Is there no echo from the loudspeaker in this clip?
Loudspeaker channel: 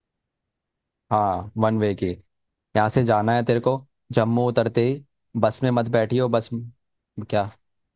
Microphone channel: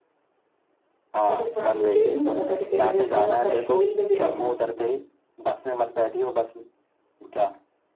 No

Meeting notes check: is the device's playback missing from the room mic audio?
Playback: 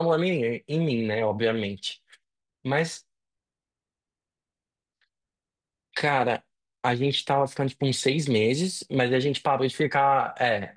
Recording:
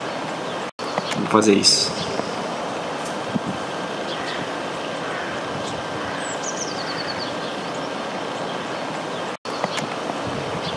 Yes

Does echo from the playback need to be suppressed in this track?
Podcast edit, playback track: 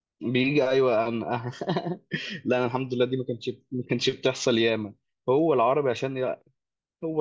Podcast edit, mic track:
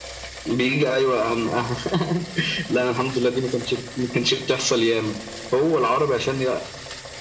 Yes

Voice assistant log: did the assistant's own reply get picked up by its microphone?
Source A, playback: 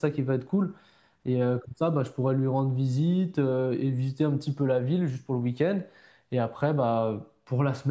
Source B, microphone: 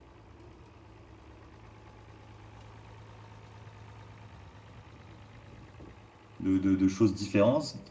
No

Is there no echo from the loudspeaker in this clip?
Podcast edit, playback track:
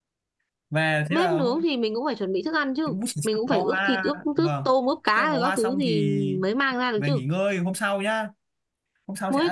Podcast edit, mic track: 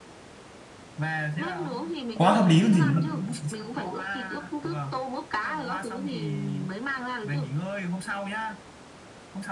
No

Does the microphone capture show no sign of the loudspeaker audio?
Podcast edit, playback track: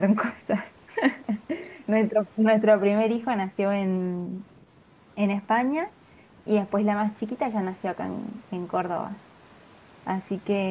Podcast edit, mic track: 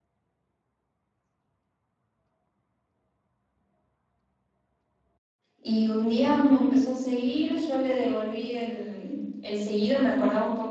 Yes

